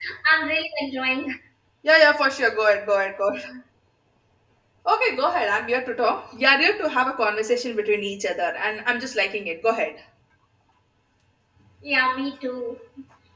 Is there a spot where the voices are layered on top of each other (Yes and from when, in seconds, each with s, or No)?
No